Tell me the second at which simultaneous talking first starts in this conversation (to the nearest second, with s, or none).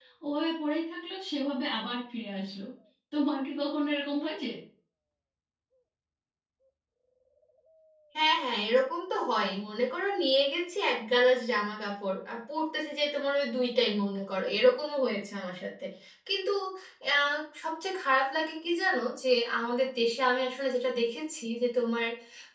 none